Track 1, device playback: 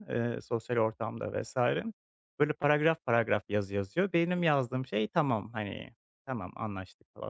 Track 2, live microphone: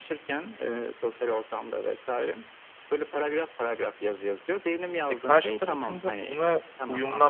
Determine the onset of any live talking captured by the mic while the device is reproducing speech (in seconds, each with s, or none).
5.1 s